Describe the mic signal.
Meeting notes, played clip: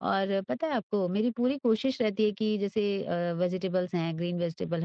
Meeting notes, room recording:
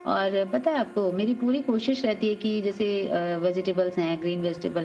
echo only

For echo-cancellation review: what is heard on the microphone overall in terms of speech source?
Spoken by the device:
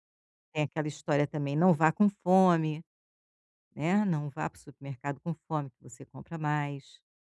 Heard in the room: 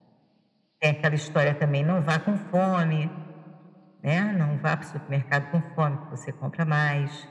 echo only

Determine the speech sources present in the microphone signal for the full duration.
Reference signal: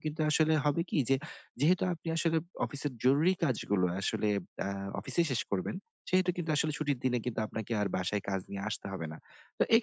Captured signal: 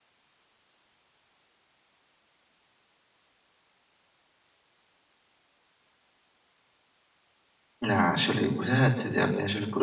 user only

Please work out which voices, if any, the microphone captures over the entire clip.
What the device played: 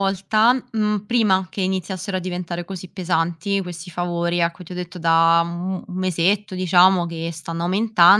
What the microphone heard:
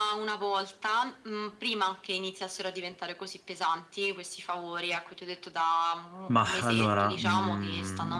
both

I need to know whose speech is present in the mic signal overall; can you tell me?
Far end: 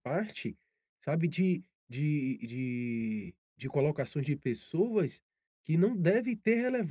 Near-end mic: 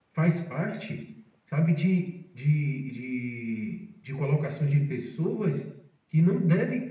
echo only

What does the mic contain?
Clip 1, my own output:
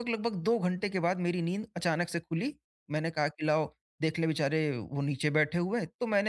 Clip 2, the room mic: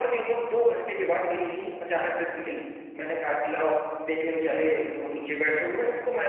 echo only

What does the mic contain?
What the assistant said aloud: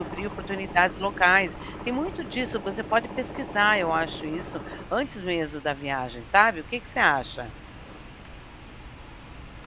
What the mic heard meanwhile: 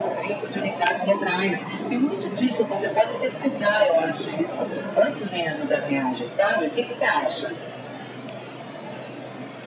echo only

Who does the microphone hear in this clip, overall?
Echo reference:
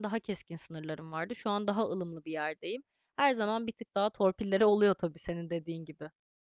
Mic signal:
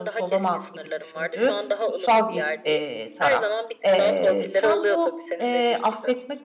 both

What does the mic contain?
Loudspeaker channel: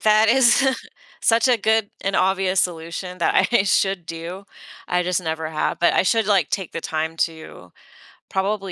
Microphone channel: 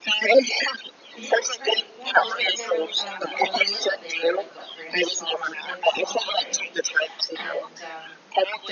both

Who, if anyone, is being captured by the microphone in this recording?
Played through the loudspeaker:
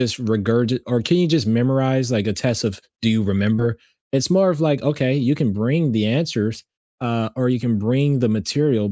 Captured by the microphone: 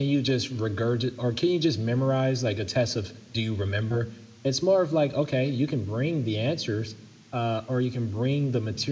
echo only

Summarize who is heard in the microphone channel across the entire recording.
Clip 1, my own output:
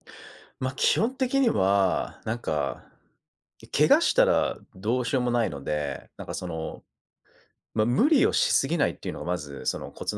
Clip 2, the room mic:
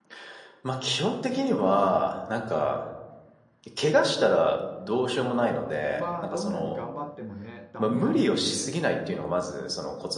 both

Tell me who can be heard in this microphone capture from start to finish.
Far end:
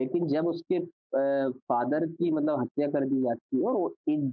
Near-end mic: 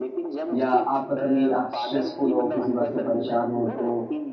both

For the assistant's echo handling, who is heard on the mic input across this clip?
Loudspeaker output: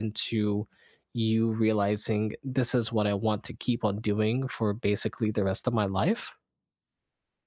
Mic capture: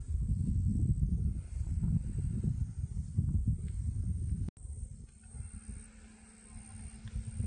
neither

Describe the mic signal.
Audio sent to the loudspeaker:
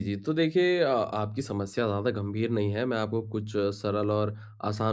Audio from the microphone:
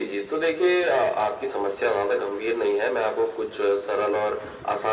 echo only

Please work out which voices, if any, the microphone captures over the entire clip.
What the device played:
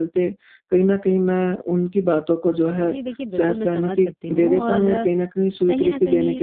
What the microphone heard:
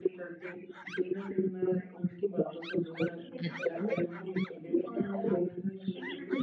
both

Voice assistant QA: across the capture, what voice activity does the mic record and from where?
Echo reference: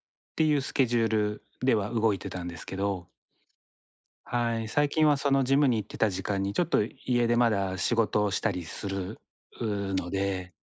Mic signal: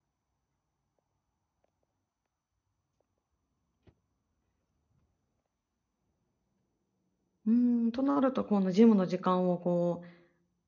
user only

